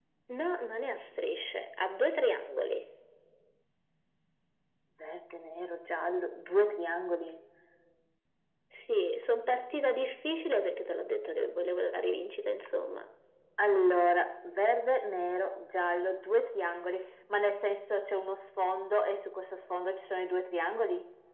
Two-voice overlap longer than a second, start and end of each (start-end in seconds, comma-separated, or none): none